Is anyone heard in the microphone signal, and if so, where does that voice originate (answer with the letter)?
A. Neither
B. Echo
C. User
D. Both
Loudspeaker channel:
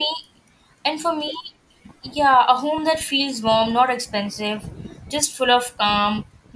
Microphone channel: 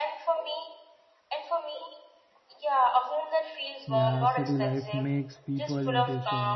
D